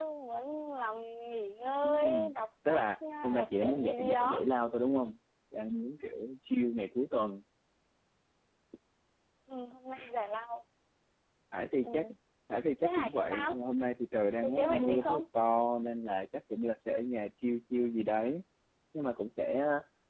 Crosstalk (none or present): present